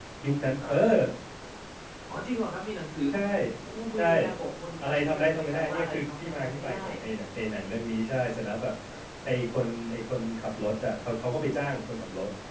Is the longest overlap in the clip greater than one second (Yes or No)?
Yes